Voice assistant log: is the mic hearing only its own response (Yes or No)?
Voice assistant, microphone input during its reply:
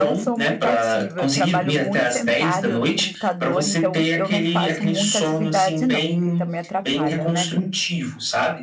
No